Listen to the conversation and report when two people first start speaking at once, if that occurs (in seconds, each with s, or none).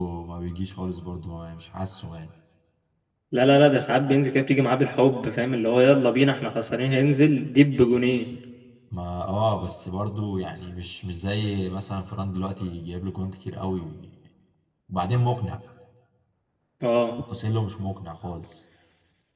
none